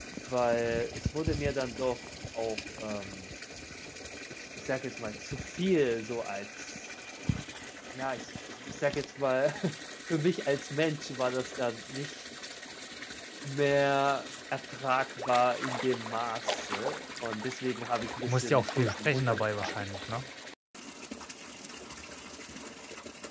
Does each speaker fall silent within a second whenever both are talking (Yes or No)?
No